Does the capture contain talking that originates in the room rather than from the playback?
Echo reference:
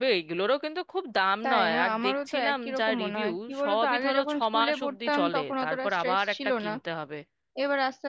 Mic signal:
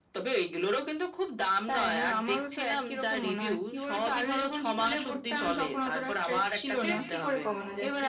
Yes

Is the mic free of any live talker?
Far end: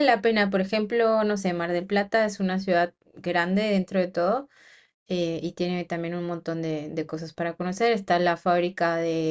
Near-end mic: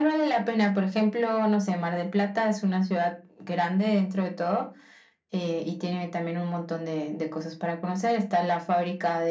Yes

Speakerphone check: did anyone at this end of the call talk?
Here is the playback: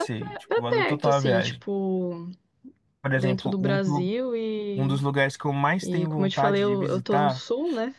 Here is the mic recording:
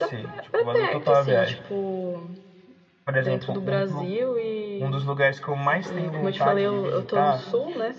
Yes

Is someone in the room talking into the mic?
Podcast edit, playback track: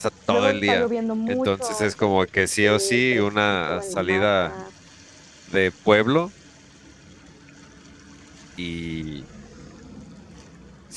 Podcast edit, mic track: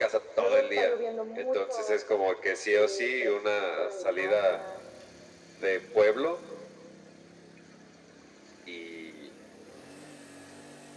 No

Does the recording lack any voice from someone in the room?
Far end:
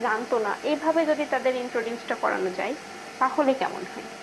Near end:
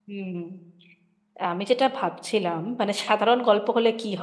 No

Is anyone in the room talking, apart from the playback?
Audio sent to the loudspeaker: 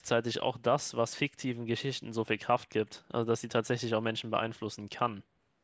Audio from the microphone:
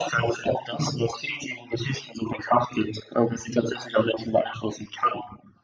No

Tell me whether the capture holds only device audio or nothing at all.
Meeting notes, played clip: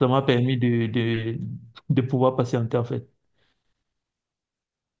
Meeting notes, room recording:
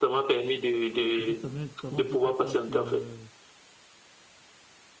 No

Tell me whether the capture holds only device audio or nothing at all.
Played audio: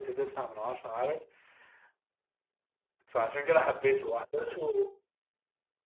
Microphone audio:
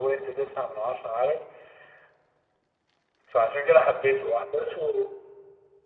Yes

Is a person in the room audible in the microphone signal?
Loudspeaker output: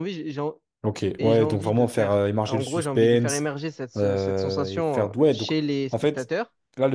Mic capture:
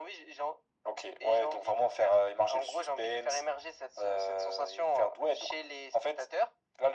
No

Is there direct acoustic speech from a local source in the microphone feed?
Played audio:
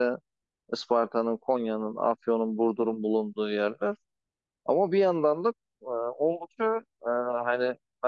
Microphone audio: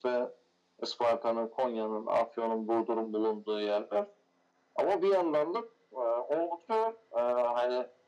No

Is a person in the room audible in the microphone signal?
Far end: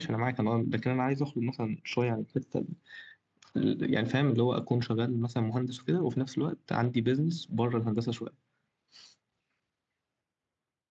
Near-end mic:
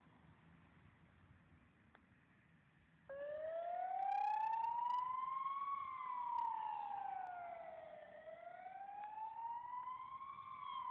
No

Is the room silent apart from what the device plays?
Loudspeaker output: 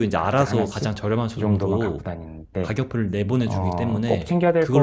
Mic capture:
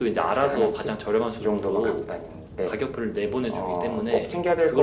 Yes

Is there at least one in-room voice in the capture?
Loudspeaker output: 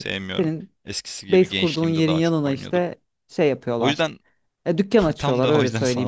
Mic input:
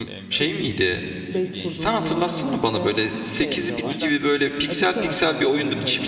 Yes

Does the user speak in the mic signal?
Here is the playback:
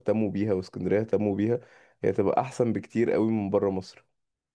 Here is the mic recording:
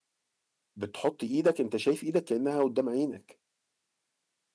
Yes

